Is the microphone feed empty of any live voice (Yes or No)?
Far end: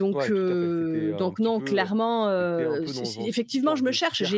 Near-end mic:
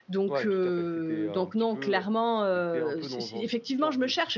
Yes